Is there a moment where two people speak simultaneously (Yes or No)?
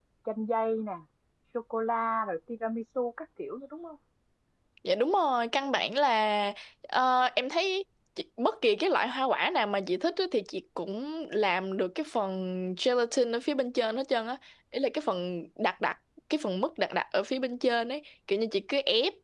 No